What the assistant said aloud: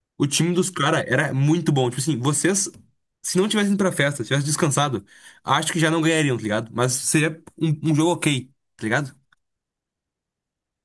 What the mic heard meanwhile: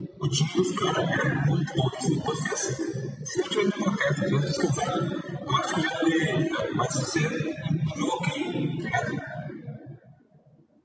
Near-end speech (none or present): none